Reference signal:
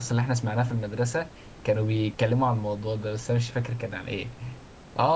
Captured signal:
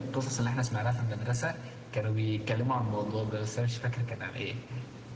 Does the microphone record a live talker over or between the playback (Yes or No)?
No